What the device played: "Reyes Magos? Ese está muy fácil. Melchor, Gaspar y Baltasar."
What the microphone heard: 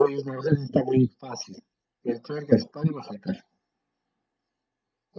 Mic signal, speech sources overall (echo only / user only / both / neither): echo only